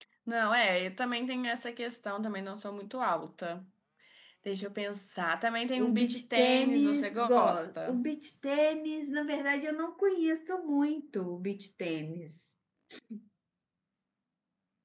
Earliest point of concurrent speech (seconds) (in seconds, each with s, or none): 5.8 s